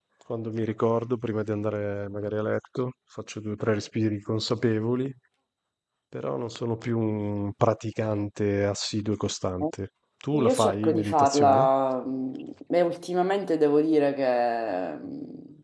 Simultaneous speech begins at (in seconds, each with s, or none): 10.3 s